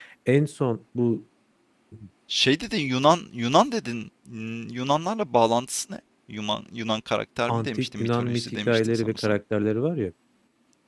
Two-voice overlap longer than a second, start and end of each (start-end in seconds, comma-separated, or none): 7.5-9.3